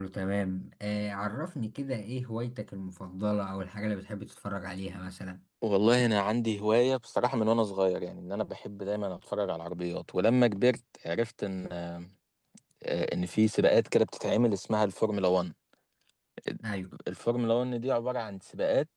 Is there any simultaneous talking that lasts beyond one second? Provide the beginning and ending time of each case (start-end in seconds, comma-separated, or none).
none